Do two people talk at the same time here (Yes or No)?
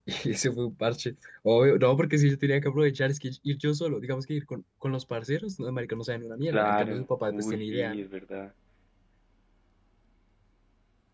Yes